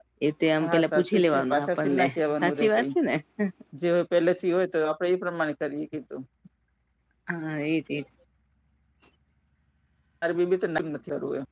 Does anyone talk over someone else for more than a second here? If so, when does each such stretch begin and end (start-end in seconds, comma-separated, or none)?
0.7-2.9